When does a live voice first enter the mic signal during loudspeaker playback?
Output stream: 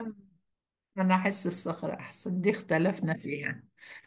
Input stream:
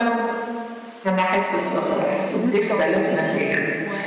1.6 s

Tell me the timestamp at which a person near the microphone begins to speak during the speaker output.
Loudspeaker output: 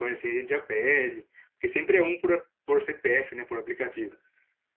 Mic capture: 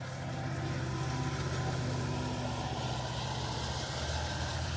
none

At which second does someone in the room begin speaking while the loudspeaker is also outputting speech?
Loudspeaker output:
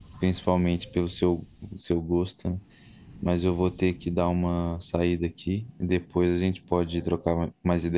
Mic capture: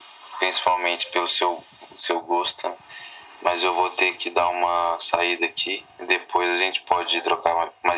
none

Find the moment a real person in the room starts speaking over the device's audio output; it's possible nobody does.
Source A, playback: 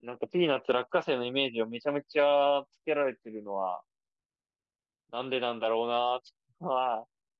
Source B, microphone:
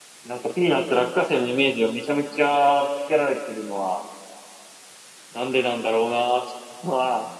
none

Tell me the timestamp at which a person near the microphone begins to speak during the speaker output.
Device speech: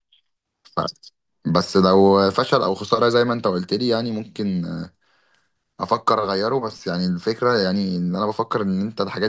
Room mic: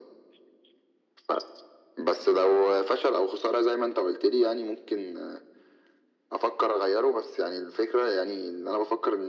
none

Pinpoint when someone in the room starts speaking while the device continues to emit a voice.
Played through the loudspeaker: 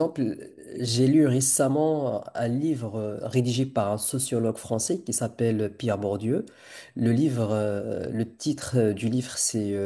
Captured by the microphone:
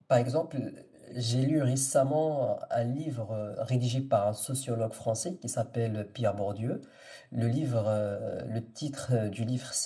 none

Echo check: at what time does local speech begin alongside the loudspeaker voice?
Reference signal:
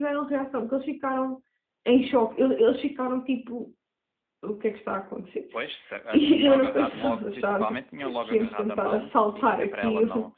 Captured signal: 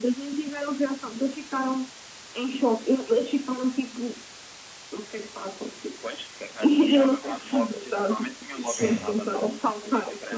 8.6 s

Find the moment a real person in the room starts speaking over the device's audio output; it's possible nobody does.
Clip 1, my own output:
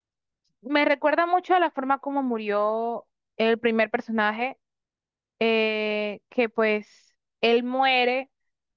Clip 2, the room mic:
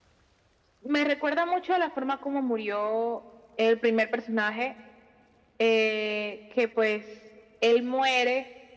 none

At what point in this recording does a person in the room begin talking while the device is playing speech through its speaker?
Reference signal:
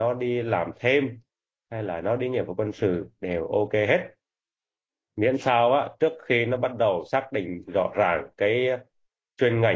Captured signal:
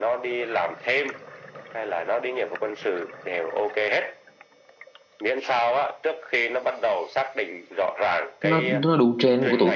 8.4 s

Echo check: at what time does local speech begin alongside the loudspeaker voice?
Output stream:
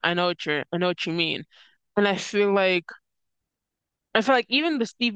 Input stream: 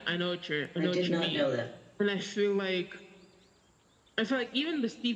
0.8 s

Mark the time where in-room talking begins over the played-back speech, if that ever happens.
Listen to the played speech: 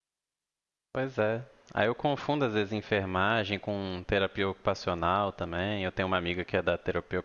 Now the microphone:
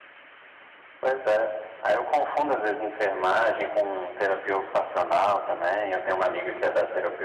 none

